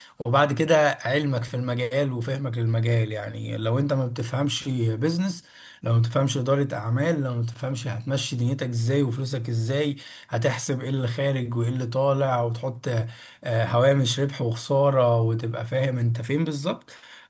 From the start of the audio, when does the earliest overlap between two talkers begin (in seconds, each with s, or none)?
none